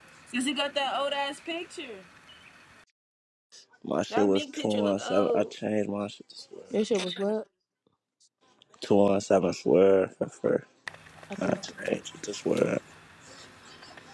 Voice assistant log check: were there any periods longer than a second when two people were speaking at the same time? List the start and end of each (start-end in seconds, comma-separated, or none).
4.1-5.5